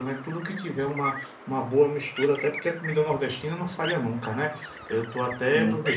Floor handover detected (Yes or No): No